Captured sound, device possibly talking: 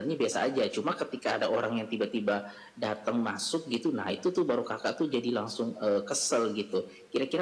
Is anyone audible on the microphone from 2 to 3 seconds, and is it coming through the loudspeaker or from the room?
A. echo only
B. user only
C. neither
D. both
A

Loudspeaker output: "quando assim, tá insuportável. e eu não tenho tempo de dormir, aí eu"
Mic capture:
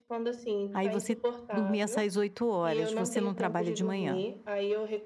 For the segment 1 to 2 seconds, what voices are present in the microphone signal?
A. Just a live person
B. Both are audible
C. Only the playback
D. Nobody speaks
B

